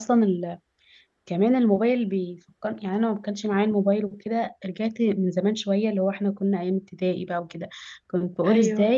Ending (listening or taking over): listening